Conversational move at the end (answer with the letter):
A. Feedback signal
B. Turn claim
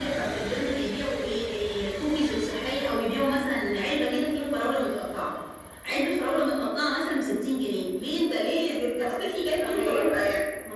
B